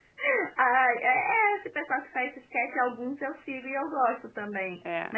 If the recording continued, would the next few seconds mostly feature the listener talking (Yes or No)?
No